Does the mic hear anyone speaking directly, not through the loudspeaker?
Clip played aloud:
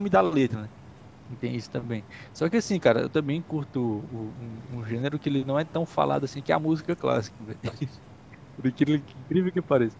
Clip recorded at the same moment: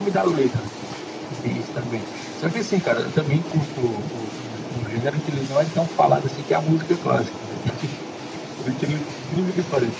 No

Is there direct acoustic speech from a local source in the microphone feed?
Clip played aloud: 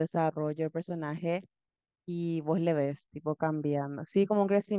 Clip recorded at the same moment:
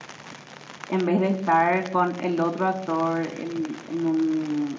Yes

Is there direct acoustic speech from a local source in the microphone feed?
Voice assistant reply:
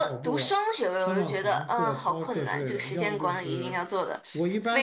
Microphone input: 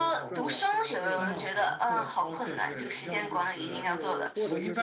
Yes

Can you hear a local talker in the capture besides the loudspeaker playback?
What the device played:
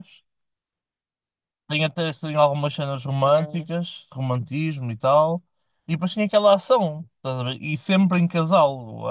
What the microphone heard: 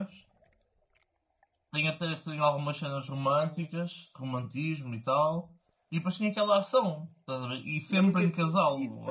Yes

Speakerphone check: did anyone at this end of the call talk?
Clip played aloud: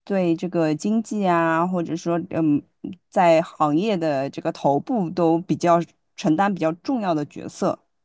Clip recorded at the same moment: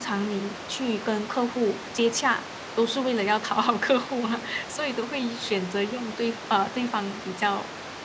Yes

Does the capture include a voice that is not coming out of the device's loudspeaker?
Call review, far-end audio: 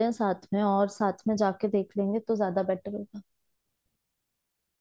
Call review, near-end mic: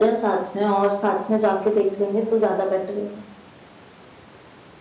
No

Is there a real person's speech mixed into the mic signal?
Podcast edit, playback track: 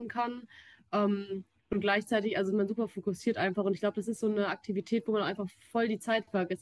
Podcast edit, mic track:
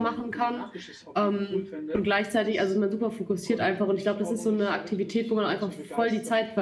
Yes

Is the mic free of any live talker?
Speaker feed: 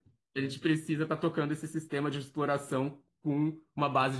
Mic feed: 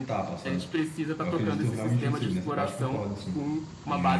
No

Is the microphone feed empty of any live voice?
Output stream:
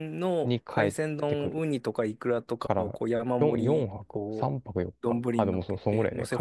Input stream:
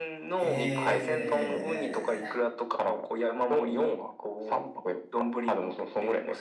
No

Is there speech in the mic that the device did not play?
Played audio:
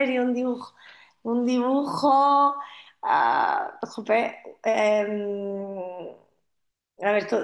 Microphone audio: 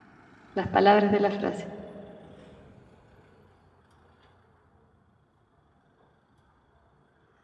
Yes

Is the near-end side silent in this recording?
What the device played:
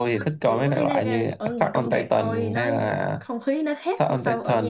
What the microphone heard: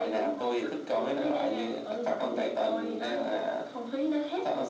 Yes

